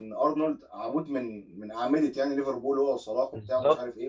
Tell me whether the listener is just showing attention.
Yes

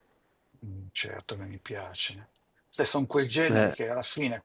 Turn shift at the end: No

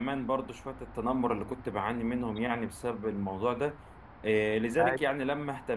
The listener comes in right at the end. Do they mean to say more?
No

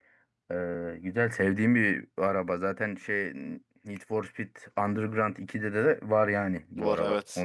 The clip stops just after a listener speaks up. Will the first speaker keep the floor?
Yes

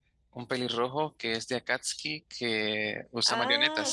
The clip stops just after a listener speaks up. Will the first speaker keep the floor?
No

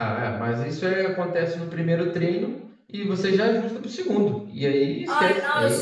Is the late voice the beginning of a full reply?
Yes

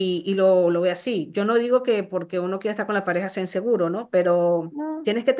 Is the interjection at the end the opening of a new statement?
No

